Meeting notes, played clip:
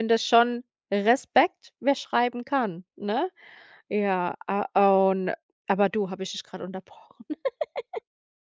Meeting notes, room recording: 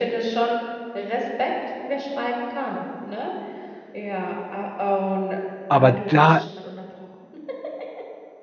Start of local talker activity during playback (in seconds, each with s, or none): 5.7 s